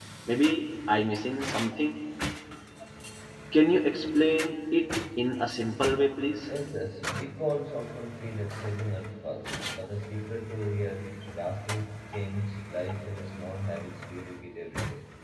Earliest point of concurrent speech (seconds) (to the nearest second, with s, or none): none